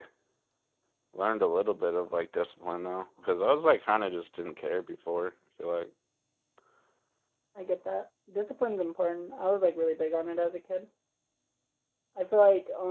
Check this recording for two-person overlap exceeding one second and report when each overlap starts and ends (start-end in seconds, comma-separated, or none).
none